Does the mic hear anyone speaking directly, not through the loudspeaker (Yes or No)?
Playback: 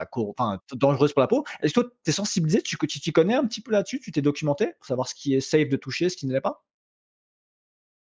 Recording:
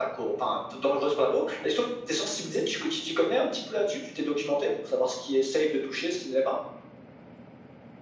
No